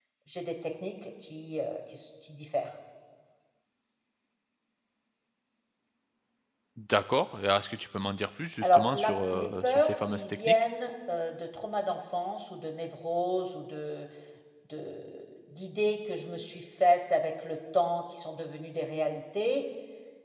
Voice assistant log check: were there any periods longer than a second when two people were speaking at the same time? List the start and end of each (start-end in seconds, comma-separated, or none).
8.6-10.5